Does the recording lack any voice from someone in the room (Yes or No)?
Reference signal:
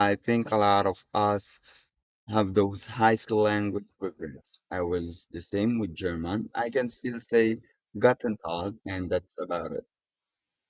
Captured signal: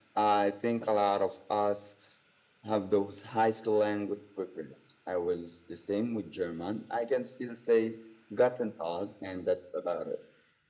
Yes